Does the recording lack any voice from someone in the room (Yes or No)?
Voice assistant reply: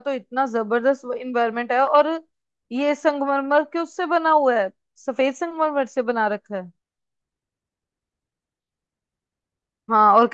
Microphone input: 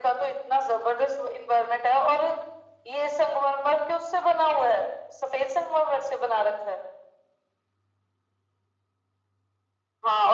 Yes